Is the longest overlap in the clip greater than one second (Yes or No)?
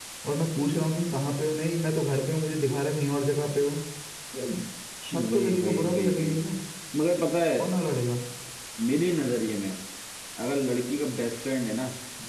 Yes